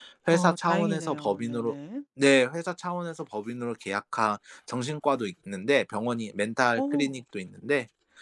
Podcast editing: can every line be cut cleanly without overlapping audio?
No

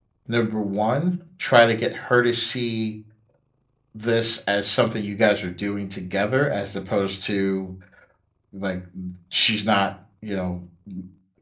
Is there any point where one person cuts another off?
No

